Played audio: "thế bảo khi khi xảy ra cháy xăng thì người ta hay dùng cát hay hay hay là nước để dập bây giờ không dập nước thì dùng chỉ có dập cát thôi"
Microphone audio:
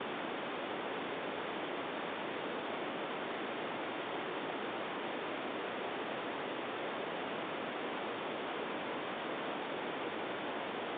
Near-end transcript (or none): none